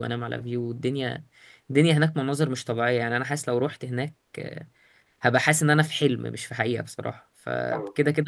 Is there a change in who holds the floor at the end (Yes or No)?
No